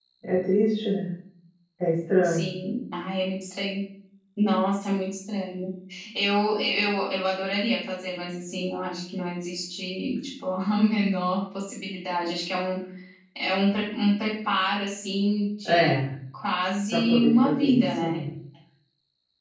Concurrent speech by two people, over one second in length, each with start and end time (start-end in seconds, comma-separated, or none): 16.9-18.2